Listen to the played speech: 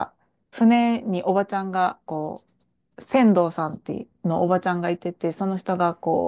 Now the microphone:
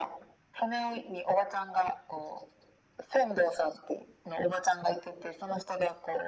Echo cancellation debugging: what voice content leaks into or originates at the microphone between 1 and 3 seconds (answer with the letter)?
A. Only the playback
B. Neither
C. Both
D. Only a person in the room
A